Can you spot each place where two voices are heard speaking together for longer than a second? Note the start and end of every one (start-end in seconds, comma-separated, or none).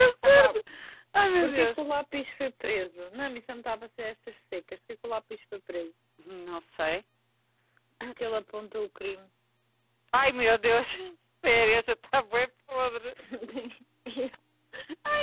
none